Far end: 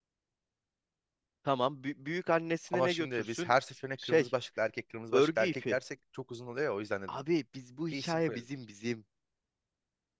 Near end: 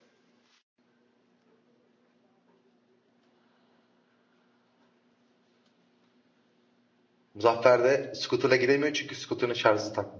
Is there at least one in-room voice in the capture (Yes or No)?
Yes